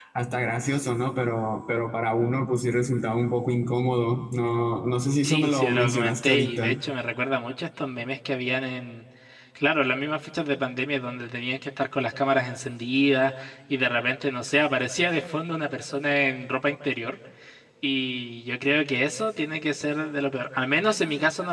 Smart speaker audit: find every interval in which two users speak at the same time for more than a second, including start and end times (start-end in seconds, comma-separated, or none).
5.2-6.8